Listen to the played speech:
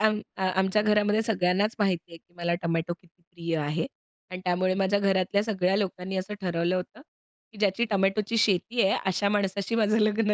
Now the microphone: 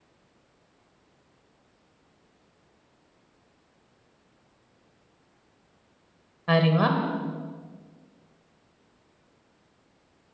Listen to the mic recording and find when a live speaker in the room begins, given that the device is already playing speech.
6.5 s

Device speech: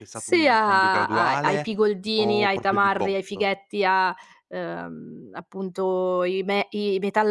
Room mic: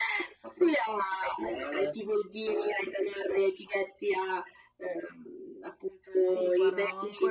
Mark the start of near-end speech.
6.2 s

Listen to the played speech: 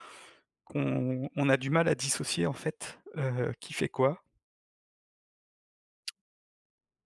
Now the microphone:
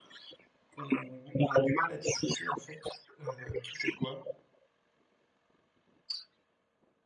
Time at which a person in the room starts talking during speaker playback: none

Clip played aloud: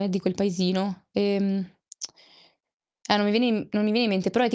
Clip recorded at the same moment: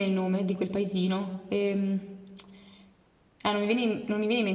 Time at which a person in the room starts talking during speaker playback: none

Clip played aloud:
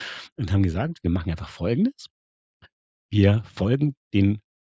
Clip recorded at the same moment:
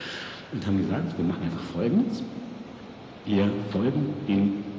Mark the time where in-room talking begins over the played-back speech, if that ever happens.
none

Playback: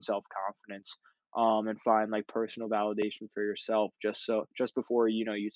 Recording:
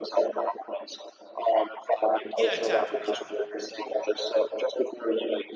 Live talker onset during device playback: 2.3 s

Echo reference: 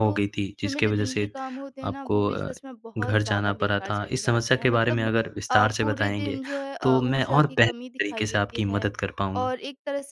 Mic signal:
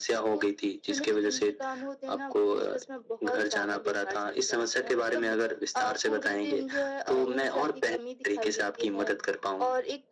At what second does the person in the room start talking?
none

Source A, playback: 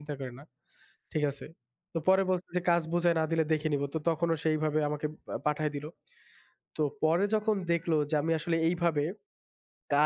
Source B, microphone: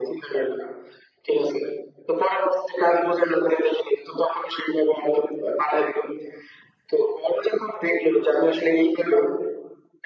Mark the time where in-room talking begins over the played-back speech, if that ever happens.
none

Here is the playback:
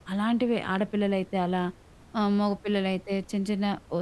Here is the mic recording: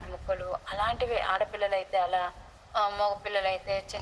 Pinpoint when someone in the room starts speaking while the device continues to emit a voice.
none

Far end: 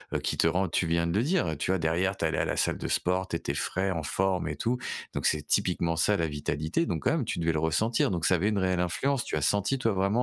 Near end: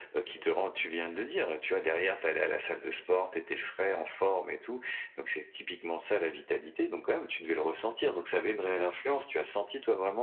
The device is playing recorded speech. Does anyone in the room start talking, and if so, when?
none

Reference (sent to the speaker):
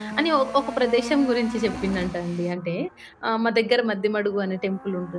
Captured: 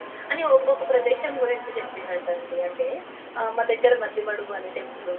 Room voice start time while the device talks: none

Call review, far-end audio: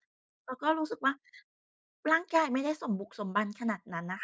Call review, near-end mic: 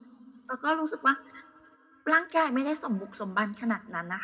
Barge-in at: none

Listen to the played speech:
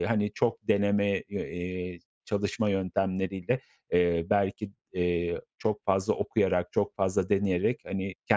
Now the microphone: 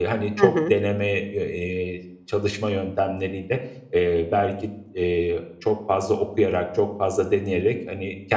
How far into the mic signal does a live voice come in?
0.4 s

